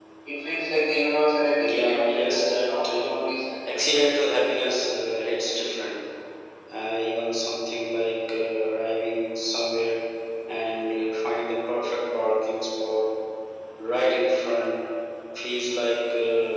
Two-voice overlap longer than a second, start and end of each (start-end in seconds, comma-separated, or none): 1.6-3.1